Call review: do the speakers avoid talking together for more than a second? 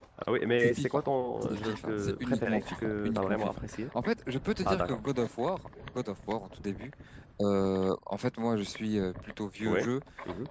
No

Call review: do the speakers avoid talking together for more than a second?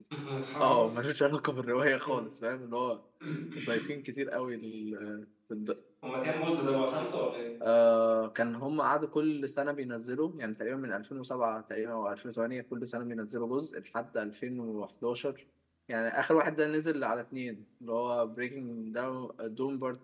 Yes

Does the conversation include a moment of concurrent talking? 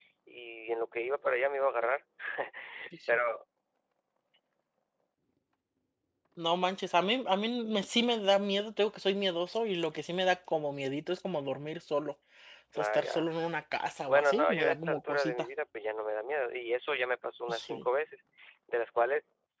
Yes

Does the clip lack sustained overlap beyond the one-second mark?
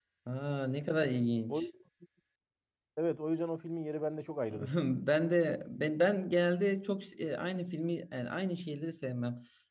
Yes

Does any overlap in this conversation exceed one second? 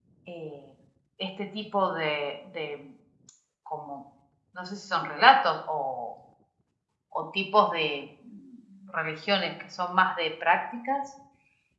No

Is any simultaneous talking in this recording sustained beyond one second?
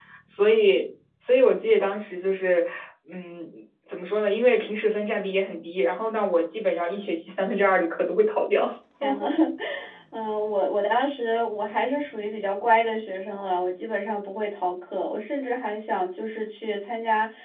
No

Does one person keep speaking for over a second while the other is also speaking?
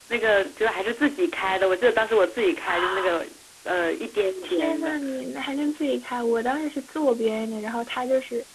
No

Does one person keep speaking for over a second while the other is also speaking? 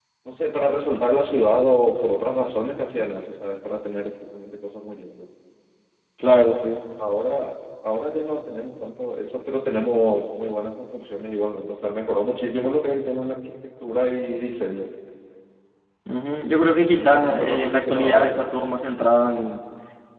Yes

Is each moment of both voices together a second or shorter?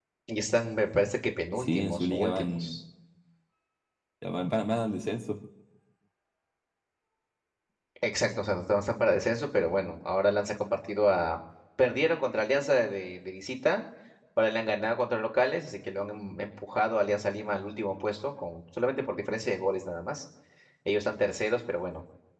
No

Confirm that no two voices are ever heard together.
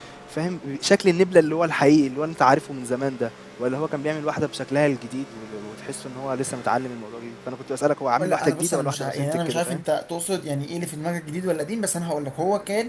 No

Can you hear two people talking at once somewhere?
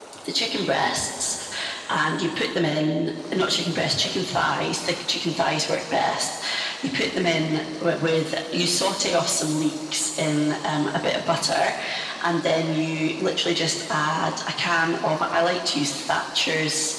No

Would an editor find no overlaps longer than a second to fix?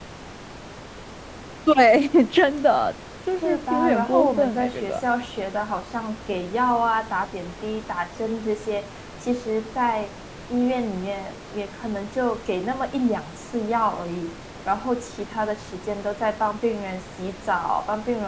No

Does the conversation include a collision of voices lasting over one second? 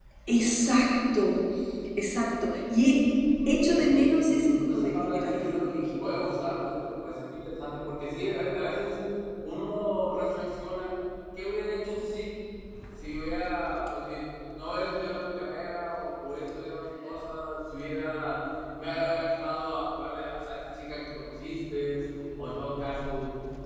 Yes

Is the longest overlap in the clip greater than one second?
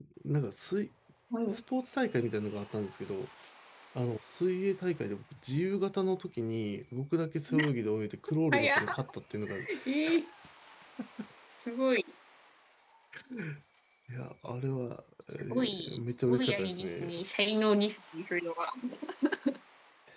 Yes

